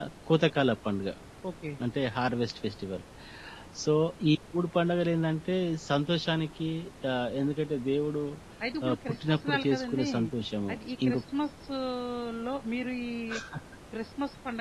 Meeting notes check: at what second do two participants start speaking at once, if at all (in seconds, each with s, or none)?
8.8 s